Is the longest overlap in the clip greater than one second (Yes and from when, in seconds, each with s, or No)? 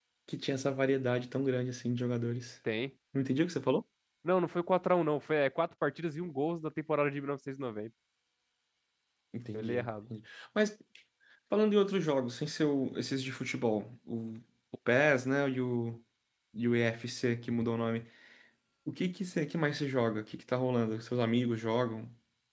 No